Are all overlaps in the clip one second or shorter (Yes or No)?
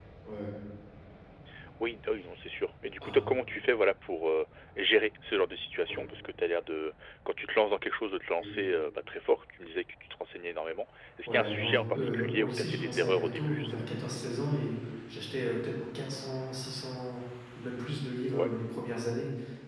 No